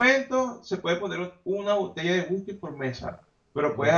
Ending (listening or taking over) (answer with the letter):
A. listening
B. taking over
A